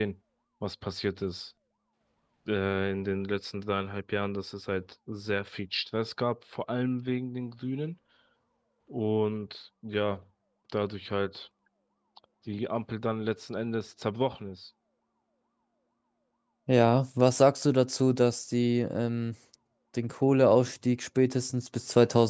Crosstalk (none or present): none